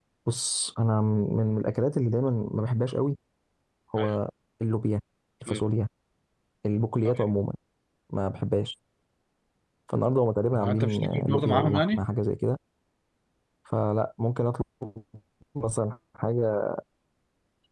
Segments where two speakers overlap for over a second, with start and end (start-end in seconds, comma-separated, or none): 10.5-12.0